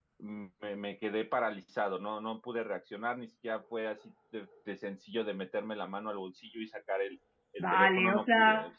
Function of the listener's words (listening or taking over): taking over